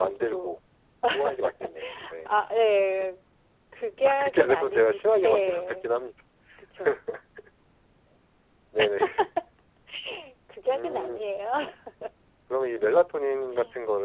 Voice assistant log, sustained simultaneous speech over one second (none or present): present